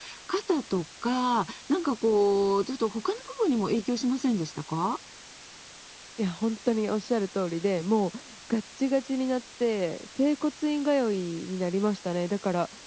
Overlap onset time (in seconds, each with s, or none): none